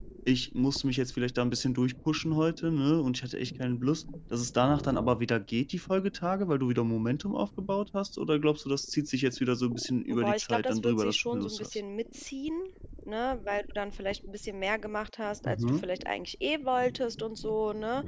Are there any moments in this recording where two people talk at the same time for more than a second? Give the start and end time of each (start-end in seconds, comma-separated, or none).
10.1-11.8